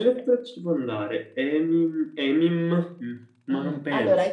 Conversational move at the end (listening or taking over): taking over